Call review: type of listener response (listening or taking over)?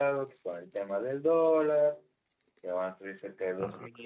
listening